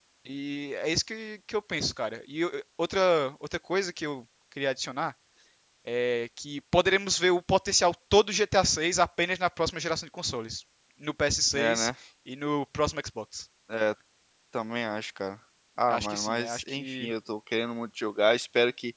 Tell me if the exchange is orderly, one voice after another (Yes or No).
No